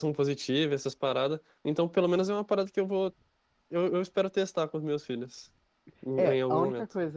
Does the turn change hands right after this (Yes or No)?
Yes